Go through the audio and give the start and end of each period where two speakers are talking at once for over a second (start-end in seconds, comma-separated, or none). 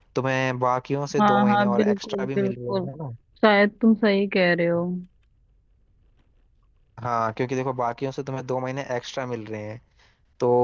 1.2-2.9